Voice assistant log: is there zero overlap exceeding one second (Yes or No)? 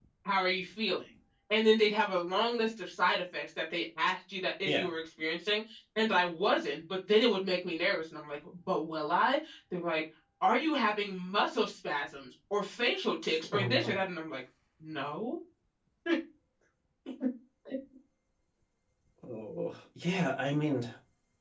Yes